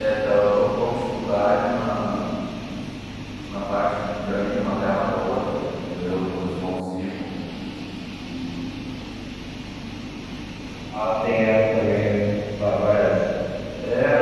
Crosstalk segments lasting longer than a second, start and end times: none

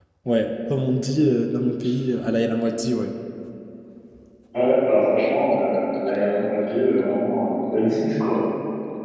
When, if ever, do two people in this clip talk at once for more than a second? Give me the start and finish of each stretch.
none

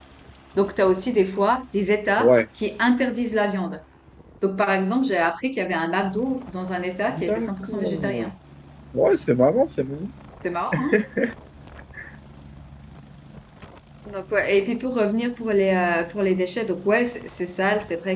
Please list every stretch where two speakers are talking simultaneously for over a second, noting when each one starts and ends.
7.1-8.3

